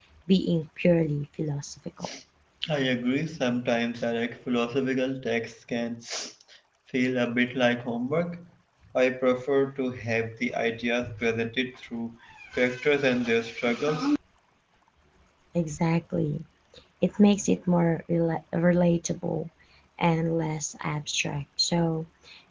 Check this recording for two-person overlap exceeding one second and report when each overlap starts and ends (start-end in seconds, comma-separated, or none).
none